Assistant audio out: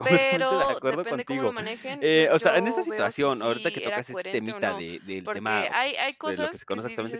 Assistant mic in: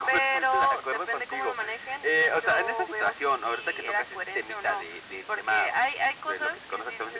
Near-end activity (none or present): none